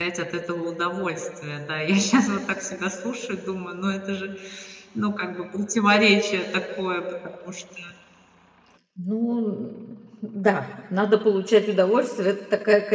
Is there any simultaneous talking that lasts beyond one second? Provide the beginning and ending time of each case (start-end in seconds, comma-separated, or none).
none